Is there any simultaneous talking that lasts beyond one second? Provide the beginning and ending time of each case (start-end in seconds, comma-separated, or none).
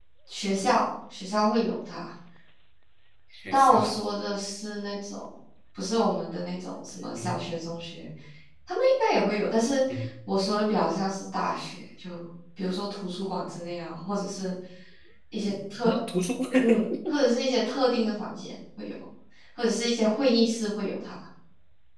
none